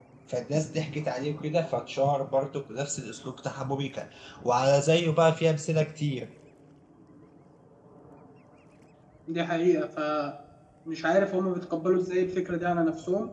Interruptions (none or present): none